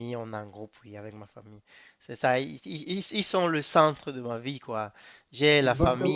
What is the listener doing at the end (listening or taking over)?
listening